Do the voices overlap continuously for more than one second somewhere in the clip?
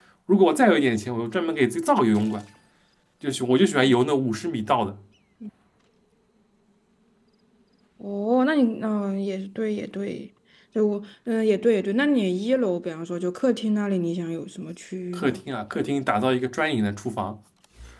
No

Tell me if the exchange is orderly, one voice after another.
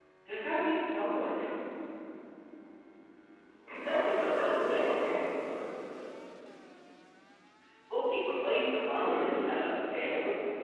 No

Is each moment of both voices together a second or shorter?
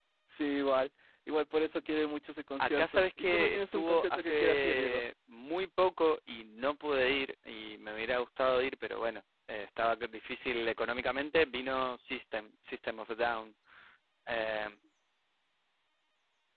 No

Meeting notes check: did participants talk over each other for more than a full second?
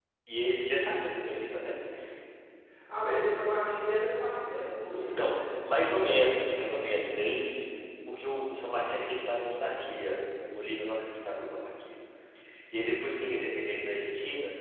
Yes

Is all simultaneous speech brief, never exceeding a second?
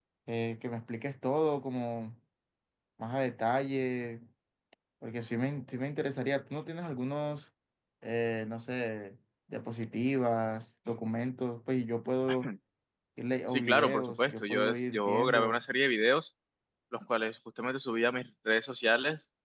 No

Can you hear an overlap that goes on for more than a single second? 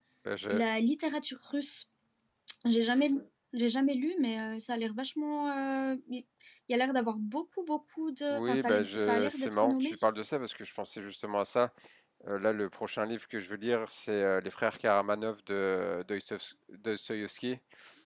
Yes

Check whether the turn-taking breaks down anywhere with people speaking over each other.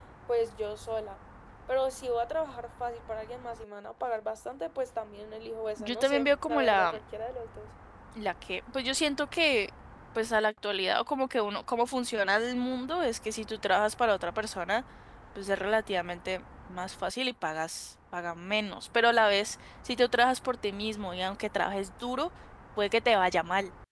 Yes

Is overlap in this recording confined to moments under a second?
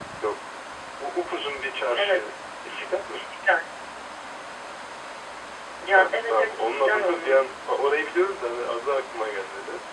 No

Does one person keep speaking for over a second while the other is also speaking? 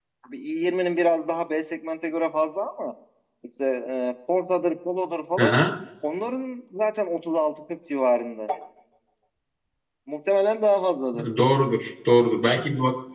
No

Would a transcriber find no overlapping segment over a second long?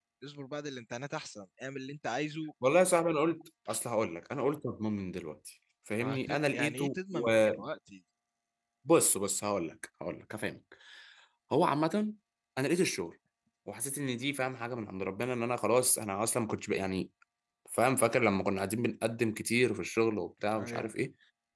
No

